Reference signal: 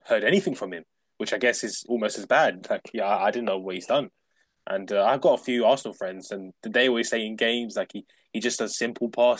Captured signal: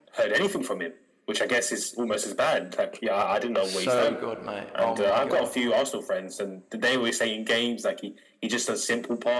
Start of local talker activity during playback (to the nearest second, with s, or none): 4 s